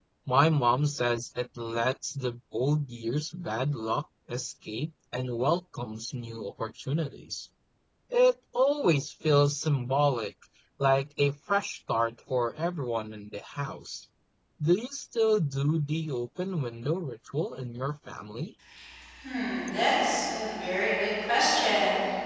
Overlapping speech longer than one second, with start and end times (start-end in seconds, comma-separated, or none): none